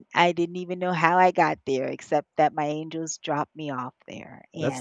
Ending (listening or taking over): taking over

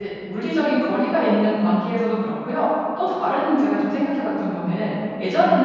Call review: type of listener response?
listening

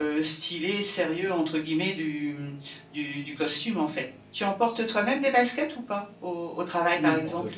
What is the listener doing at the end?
taking over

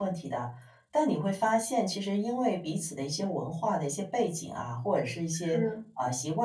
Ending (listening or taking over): listening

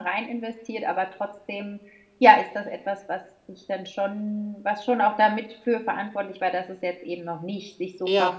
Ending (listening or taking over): taking over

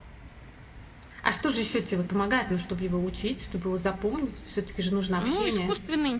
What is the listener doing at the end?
taking over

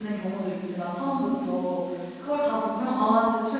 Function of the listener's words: listening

